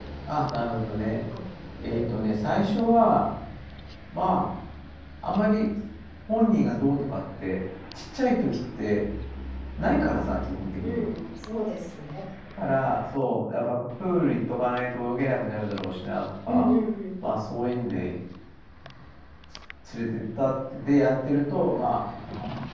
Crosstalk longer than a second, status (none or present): none